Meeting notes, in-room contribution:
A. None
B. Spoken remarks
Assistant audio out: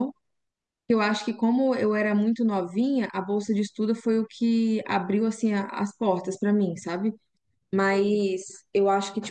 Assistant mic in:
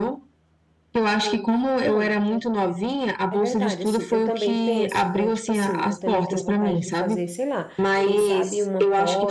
B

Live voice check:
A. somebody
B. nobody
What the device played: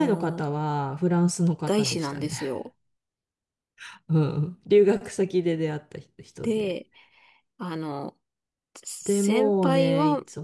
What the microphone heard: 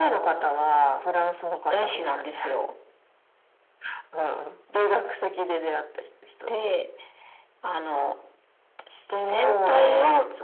B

